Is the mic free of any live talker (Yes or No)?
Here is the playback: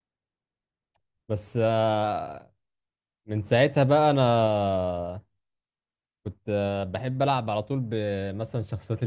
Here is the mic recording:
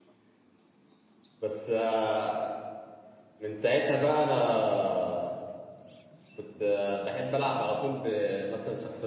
Yes